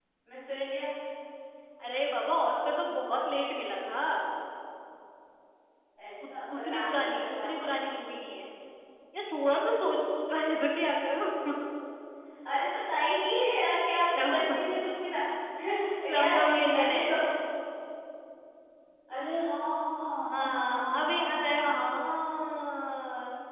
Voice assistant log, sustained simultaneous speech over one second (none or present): present